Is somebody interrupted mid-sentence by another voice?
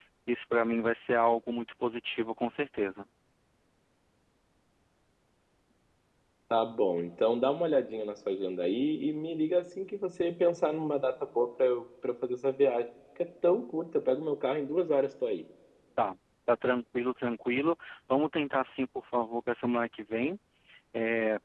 No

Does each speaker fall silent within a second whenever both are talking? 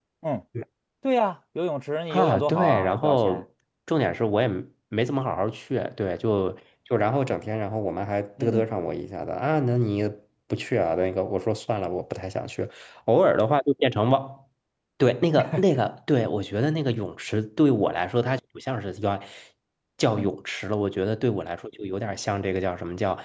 No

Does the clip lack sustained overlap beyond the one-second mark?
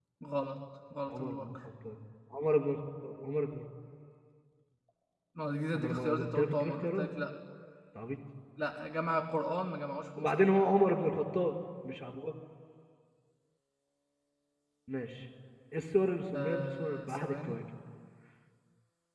No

